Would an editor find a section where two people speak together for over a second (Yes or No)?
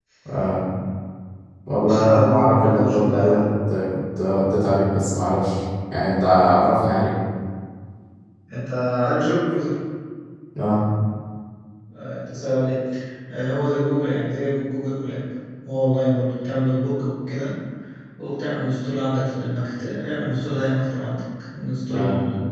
Yes